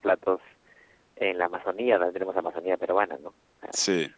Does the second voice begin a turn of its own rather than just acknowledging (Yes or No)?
No